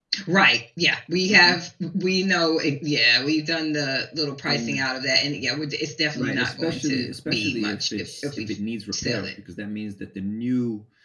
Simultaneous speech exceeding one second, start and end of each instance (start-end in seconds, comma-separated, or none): 6.1-8.5